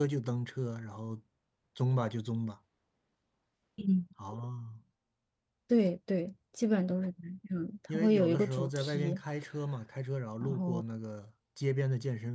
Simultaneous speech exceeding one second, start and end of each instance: 7.9-9.2

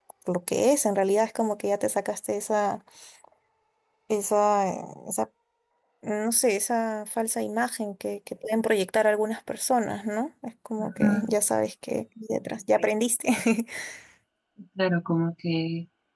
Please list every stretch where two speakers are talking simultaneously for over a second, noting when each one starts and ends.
none

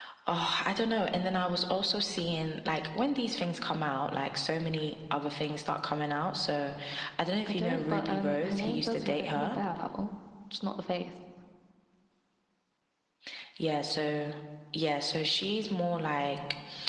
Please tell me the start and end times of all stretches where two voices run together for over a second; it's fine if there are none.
7.5-9.6

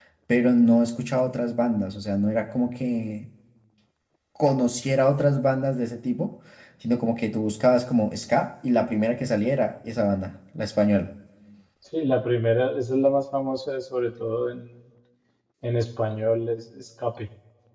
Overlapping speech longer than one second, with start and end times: none

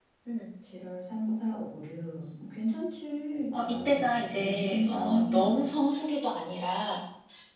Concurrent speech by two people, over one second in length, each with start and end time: 3.5-5.6

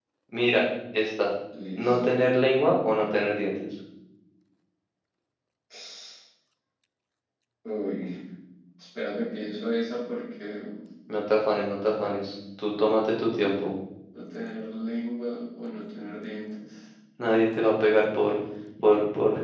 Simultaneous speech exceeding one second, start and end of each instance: none

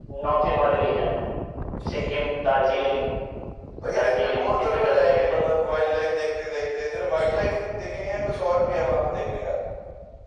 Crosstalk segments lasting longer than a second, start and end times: 3.9-5.6

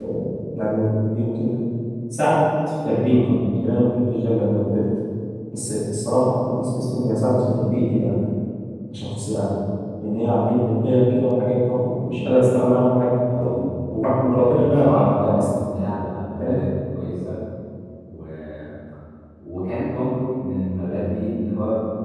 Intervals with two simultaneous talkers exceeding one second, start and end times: 14.4-15.6

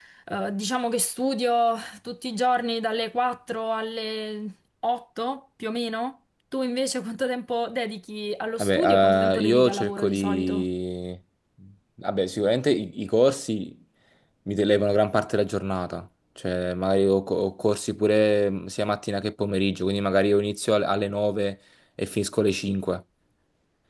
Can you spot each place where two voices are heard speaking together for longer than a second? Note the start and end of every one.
8.6-10.6

